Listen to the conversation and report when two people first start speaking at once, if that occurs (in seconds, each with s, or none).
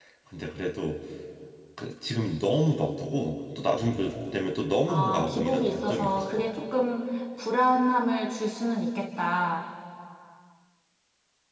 4.9 s